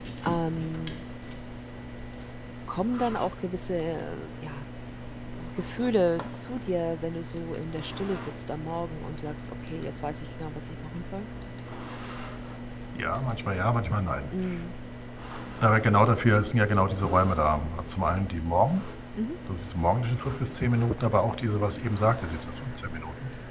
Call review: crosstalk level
none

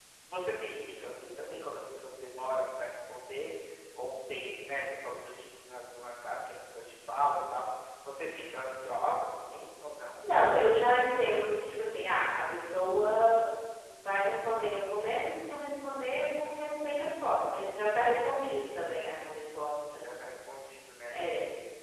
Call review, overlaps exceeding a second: none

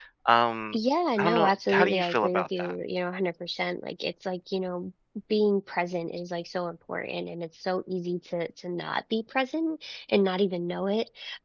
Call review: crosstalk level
present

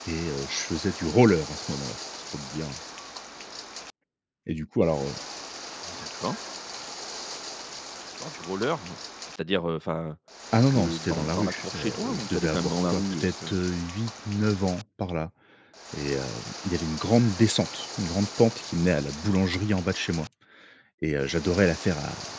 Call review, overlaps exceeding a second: present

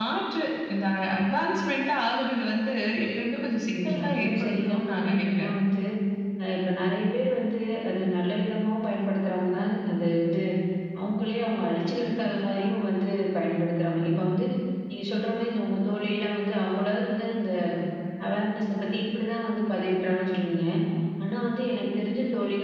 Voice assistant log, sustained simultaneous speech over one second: present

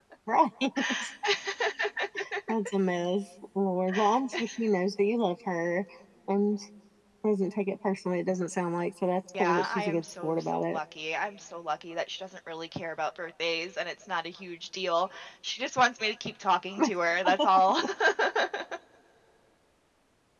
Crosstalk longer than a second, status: present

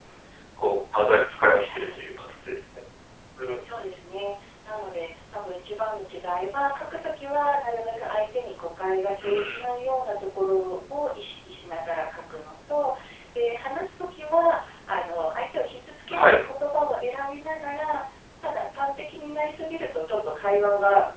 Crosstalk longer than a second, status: none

